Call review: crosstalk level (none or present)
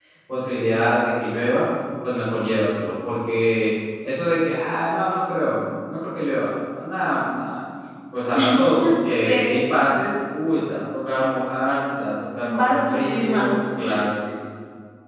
present